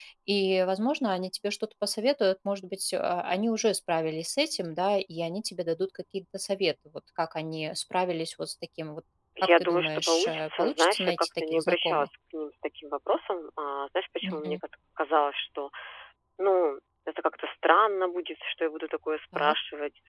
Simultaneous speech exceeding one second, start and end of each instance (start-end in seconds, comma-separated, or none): 9.4-12.1